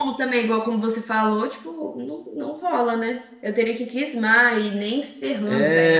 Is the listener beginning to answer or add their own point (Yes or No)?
Yes